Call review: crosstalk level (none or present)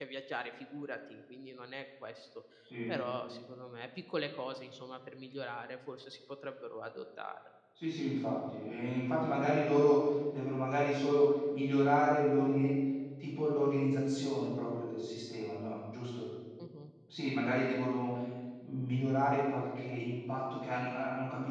none